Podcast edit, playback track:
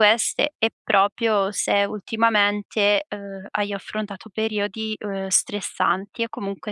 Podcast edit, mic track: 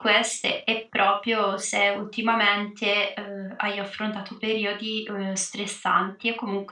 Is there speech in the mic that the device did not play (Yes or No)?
No